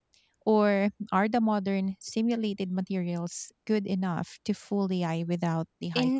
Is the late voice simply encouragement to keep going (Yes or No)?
No